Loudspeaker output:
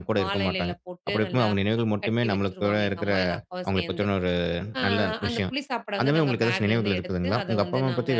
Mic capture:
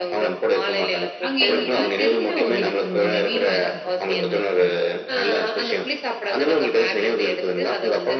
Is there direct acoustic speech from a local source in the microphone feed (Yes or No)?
Yes